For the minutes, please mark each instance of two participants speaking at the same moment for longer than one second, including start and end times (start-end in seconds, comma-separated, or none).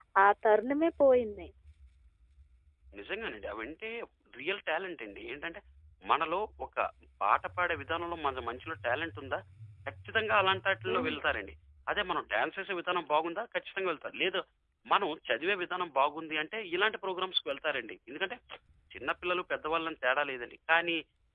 none